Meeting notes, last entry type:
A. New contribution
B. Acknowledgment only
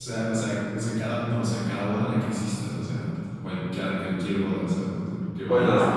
A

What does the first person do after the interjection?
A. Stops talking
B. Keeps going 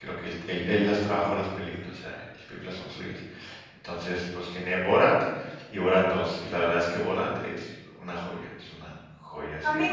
A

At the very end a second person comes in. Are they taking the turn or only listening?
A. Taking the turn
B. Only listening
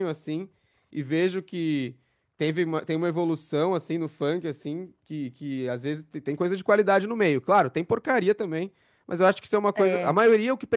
B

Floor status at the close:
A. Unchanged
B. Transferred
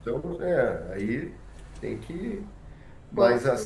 A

